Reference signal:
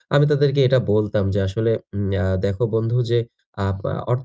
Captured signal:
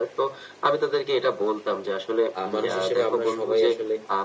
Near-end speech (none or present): present